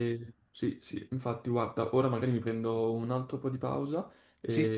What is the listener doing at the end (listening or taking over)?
listening